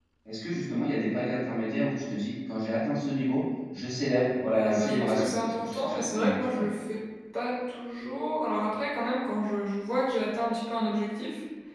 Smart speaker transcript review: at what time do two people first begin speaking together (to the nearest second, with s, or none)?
5 s